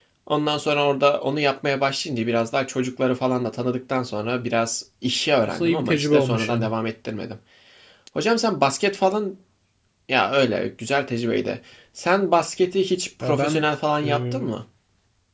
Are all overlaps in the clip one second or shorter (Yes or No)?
No